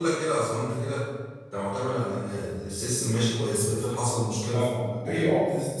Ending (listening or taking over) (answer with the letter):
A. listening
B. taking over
B